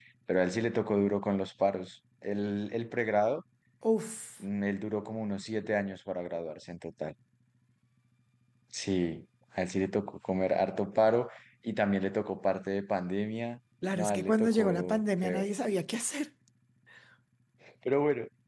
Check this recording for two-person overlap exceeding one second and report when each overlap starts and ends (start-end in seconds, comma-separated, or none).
13.9-15.5